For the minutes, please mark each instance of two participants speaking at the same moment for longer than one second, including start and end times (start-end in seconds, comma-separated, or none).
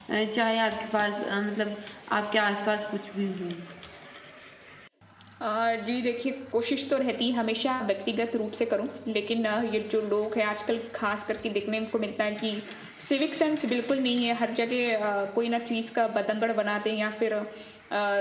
none